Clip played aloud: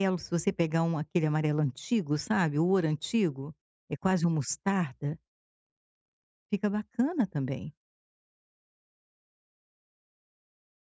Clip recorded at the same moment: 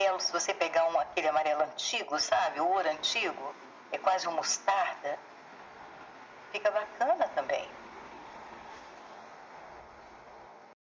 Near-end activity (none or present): none